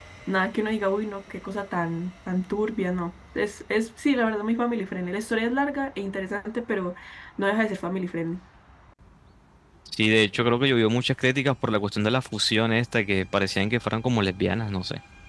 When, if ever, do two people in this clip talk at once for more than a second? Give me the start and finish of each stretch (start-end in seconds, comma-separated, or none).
none